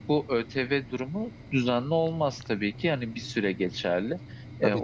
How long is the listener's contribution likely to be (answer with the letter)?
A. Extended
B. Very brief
B